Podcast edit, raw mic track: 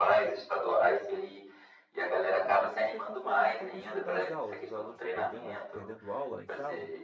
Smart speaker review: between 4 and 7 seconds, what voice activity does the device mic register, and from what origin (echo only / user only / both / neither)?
both